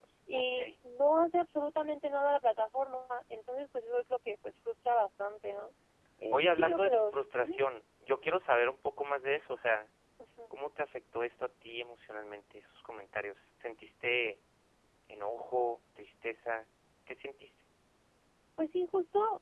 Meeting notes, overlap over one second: present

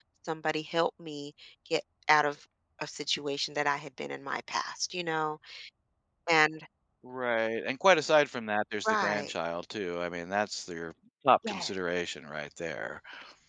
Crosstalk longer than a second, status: none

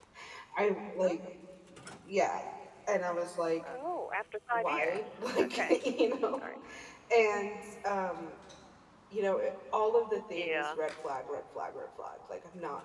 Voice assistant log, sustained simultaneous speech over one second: present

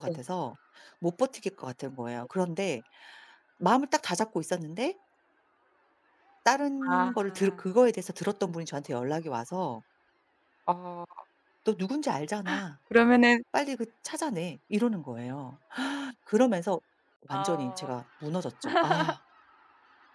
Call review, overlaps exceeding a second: none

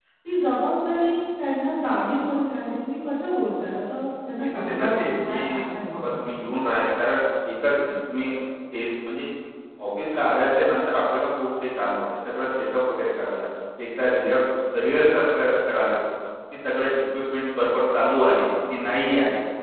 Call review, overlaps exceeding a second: present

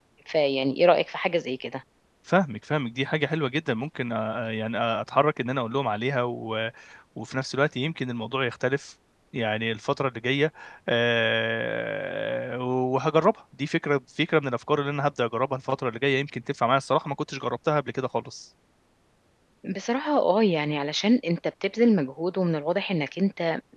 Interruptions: none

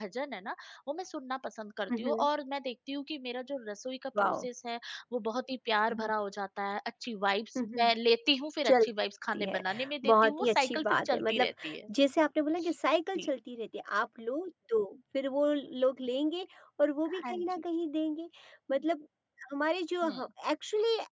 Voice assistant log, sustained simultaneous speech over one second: present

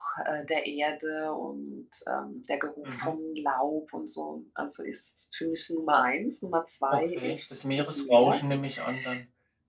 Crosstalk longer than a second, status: present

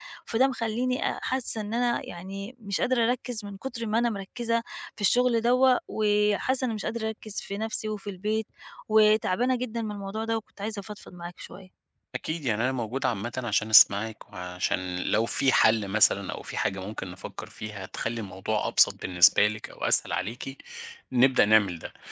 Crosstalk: none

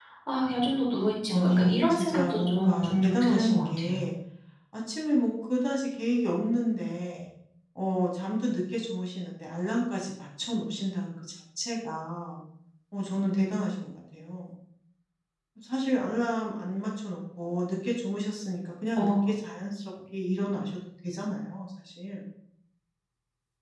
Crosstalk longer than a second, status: present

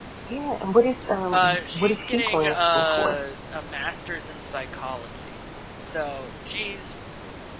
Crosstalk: present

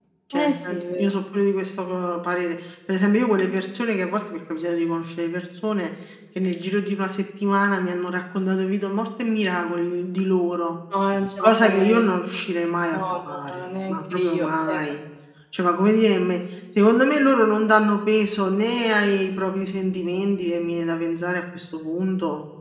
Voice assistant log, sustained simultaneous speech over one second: present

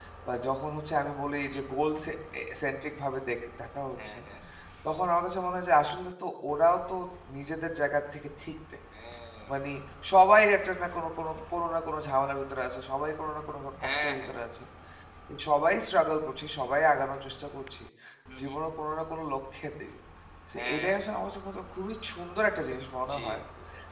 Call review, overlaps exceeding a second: none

